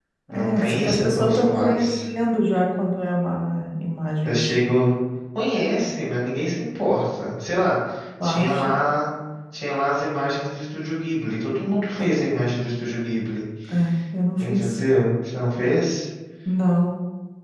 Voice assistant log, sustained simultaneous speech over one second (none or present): present